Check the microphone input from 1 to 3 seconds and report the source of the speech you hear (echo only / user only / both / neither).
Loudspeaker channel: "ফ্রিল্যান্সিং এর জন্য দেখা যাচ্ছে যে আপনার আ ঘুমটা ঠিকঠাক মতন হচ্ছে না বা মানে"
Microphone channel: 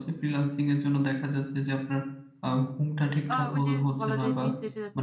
echo only